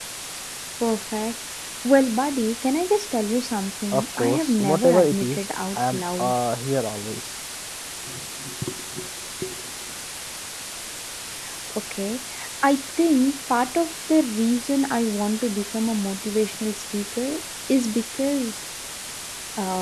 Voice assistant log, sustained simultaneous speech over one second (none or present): present